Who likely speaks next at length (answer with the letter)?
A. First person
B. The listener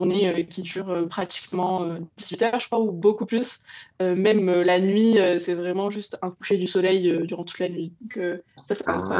B